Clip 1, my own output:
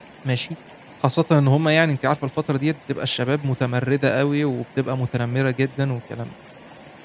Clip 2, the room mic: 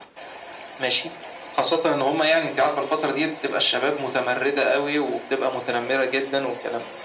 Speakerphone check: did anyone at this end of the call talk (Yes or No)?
No